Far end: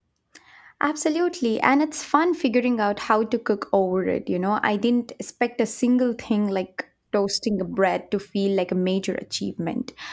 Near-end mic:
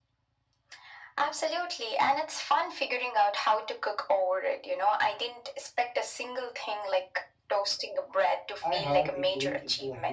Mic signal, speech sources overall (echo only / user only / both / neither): both